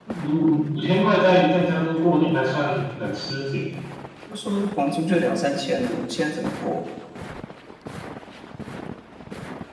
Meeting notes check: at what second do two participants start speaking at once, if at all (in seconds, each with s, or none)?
none